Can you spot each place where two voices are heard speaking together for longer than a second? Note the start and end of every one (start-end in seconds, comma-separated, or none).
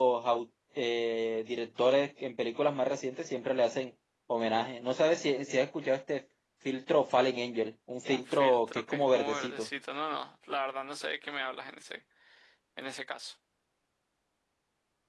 8.1-9.7